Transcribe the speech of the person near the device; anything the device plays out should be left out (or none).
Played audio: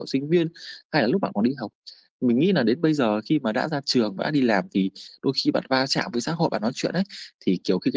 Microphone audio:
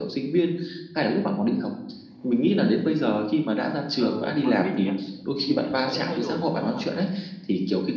ờ, với mình nhá, thì mình sẽ thay đổi theo hoàn cảnh,